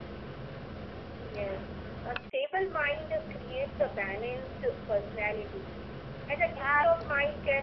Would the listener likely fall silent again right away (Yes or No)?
Yes